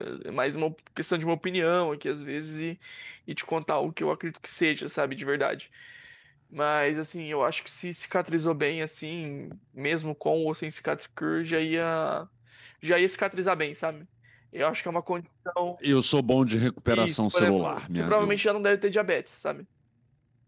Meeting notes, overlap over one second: present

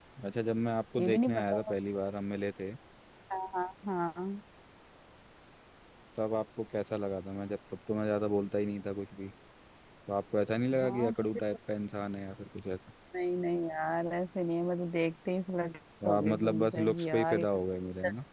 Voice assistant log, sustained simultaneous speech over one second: present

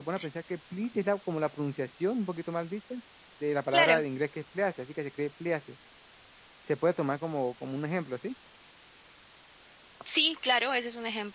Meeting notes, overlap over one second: none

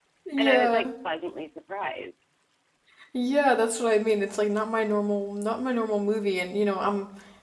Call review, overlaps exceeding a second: none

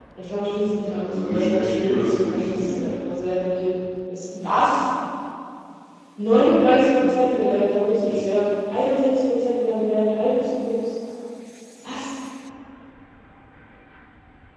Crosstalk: present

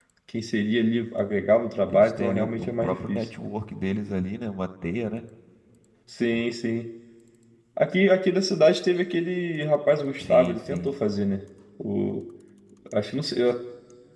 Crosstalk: present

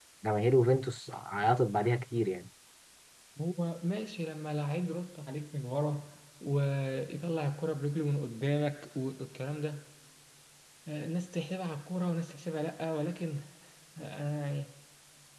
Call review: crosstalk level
none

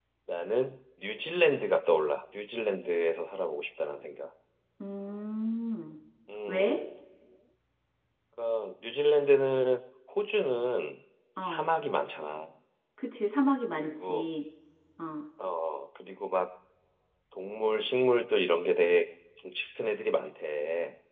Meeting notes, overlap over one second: none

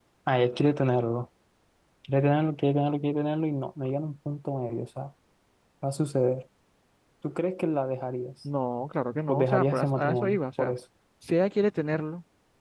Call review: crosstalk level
present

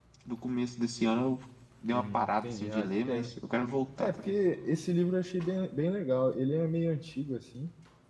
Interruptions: present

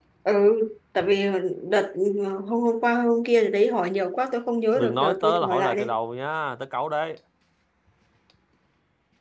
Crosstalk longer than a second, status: present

